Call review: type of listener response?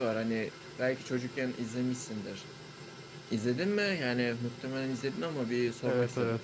taking over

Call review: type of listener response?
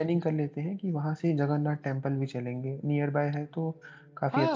taking over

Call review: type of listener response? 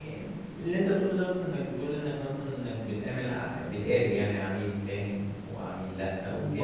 taking over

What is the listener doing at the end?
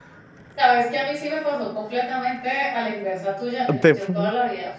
listening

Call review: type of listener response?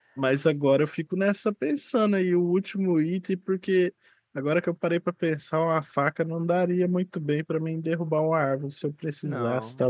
listening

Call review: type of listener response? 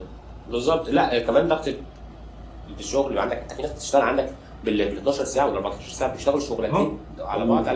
taking over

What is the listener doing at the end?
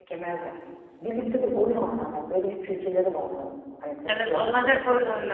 taking over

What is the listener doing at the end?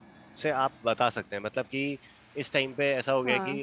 listening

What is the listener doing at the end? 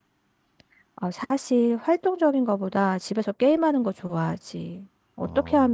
listening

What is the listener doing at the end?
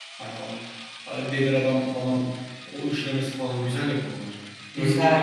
taking over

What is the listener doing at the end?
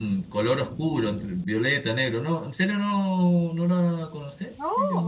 taking over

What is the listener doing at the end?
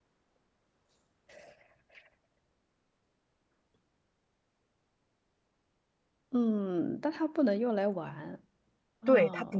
taking over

